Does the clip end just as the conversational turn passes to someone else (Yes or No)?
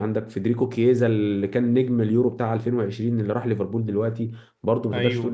No